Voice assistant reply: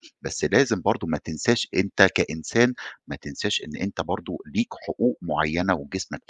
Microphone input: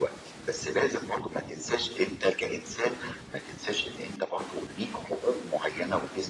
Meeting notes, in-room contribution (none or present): none